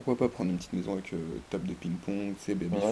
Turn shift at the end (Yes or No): Yes